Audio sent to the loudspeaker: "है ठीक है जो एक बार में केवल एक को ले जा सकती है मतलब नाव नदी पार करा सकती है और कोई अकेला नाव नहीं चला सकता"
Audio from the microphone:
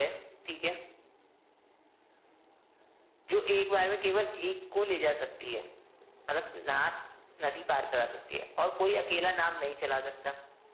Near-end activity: none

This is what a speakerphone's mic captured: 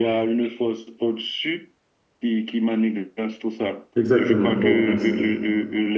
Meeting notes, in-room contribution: present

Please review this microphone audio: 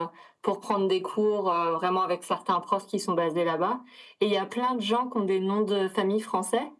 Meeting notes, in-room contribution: none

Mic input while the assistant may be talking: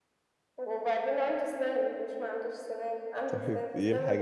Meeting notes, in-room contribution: present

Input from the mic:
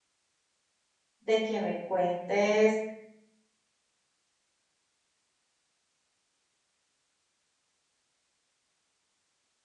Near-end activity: present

